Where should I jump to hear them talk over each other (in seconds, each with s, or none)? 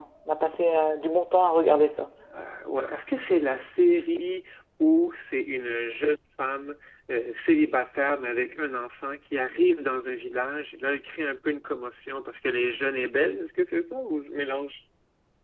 none